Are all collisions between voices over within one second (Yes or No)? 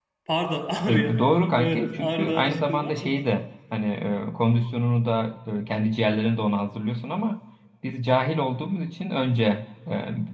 No